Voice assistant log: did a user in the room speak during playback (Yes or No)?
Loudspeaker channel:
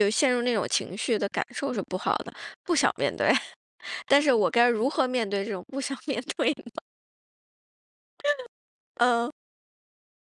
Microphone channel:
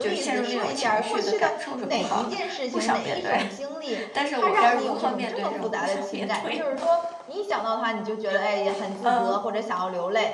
Yes